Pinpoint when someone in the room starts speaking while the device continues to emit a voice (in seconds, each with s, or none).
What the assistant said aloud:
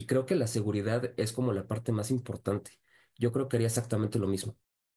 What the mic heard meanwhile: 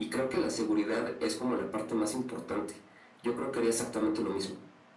none